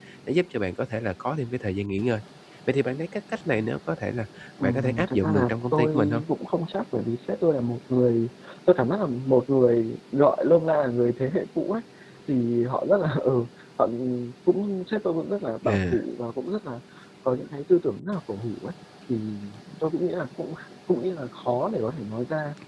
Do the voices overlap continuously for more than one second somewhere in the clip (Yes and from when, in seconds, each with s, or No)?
Yes, from 4.6 s